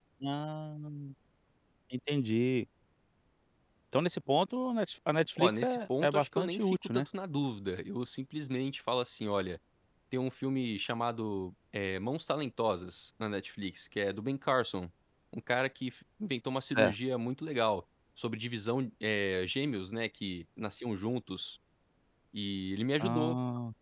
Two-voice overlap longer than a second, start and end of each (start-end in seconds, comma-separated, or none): 5.4-7.1